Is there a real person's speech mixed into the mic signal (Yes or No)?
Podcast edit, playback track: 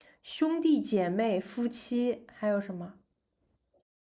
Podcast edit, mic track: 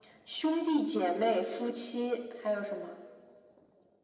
No